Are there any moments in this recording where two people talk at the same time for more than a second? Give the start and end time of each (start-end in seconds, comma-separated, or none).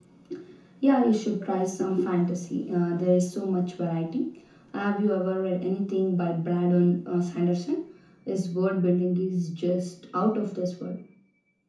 none